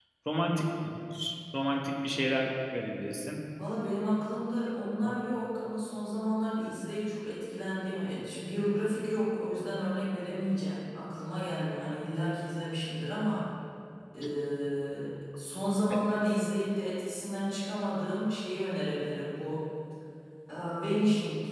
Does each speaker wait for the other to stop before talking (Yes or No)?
Yes